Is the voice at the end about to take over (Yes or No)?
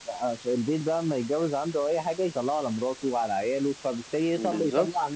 No